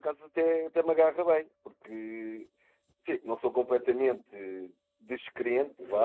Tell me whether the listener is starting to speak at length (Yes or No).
Yes